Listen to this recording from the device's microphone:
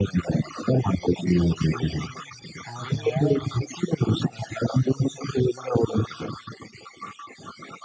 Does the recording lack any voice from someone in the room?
No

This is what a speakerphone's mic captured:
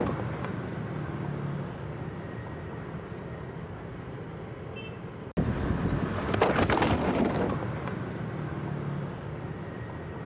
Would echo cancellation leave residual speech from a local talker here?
No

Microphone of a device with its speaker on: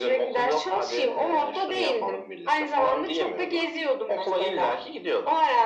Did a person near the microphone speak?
No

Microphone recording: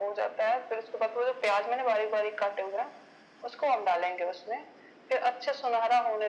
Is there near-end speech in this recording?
No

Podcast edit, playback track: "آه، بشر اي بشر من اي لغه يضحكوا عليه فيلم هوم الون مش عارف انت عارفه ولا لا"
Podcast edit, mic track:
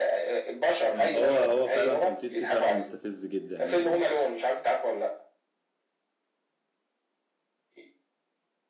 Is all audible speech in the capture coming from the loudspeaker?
No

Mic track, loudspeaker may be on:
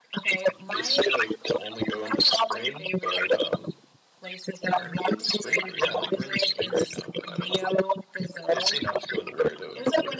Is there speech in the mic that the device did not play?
No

